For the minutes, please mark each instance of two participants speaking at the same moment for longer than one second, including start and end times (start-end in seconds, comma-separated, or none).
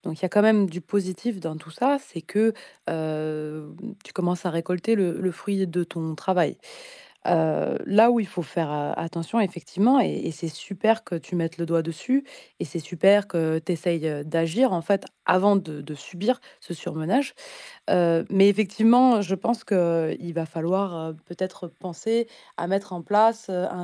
none